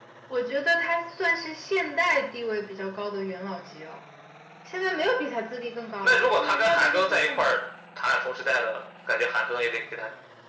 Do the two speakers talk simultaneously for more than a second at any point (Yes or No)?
Yes